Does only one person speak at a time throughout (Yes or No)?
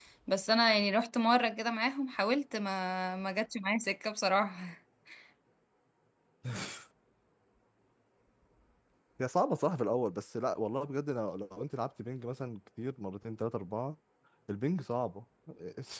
Yes